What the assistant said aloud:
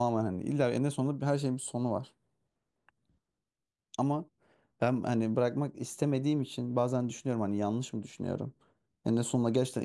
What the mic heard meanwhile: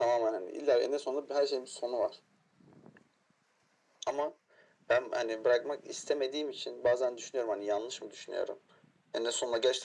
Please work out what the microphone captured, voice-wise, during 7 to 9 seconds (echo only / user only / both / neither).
echo only